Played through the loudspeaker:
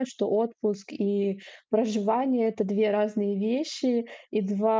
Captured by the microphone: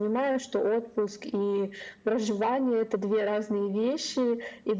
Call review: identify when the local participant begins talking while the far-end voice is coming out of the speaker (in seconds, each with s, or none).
none